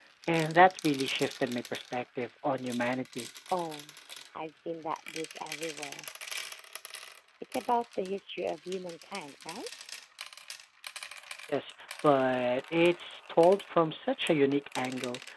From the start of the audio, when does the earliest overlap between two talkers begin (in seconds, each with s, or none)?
none